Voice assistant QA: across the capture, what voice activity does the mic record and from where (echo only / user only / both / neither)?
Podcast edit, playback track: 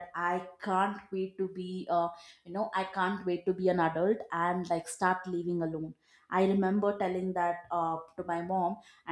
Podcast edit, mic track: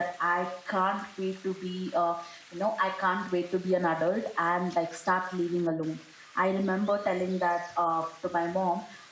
echo only